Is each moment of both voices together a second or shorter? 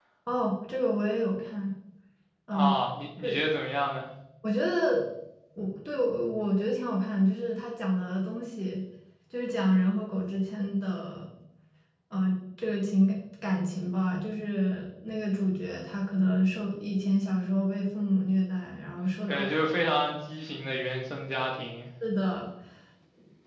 Yes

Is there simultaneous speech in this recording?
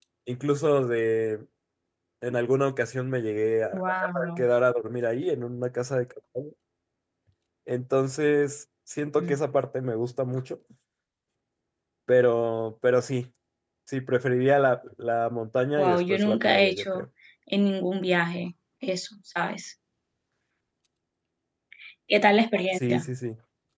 Yes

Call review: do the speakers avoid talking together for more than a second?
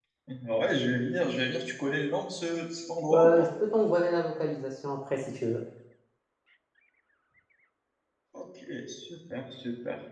Yes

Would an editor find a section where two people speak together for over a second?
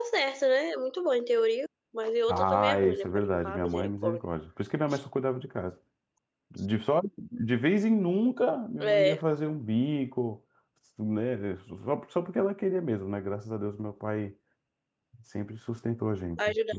Yes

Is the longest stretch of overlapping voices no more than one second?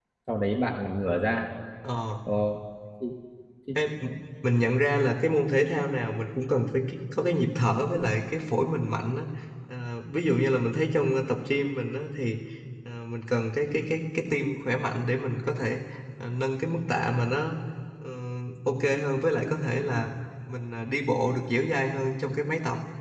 Yes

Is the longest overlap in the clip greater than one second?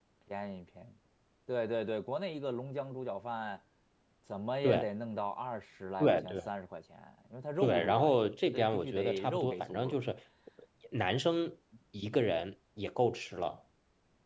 Yes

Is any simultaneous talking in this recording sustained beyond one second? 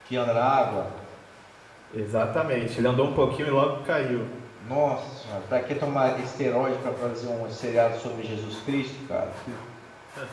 No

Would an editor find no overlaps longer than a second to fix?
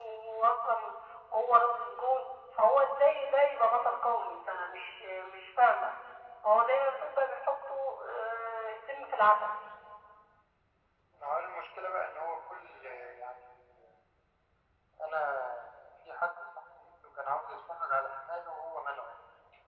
Yes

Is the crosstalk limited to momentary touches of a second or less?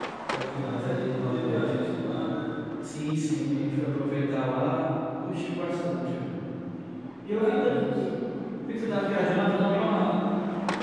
No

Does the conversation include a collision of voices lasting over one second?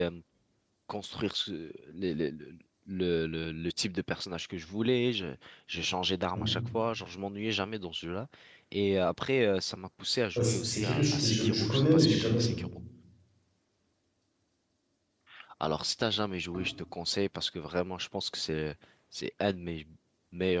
Yes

